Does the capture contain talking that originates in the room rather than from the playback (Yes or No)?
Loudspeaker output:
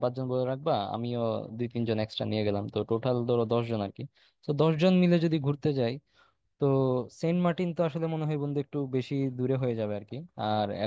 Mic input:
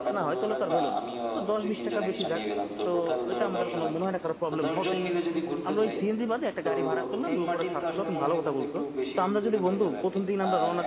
Yes